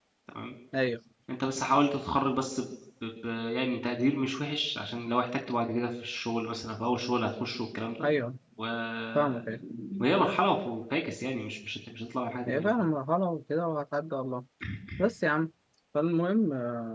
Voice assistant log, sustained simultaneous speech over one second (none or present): none